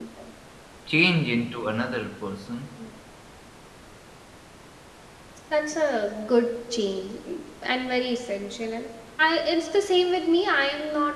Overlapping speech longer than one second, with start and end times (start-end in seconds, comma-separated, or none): none